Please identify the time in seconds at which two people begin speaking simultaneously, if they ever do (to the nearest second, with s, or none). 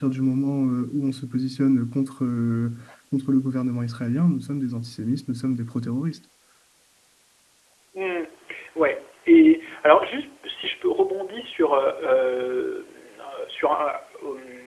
none